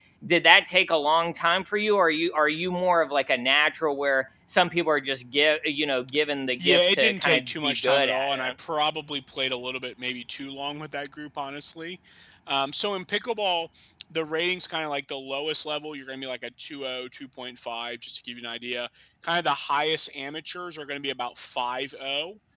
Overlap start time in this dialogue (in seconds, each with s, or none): 6.6 s